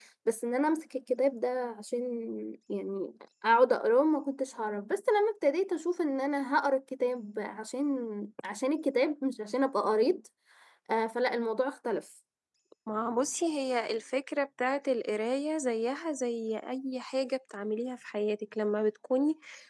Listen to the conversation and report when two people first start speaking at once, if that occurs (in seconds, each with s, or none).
none